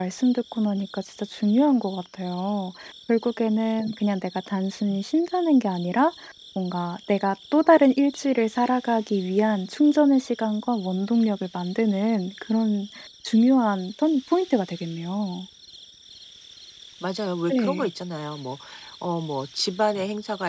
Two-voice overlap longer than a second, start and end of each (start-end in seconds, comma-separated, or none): none